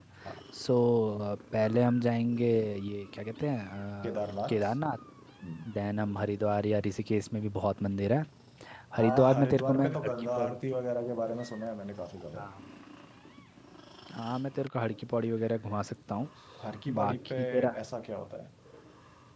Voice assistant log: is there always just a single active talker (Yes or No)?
No